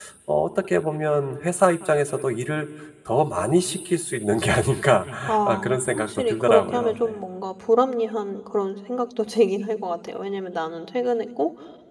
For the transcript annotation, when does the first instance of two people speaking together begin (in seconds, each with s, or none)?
5.5 s